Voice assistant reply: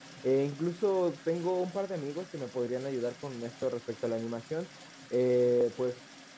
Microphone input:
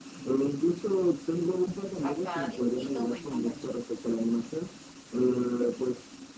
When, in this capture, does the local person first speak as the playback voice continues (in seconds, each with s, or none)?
2.0 s